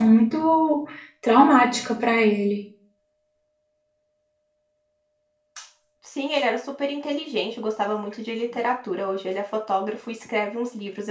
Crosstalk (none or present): none